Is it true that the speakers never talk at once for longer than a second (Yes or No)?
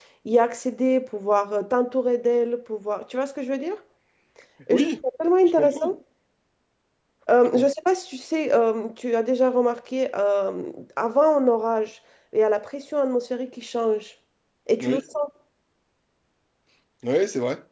Yes